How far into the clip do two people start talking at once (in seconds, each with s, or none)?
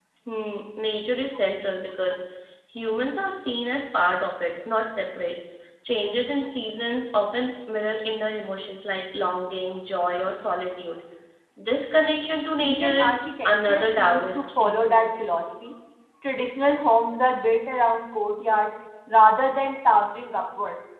12.6 s